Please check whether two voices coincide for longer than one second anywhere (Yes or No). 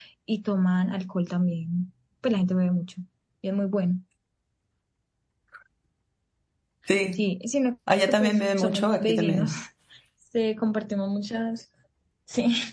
Yes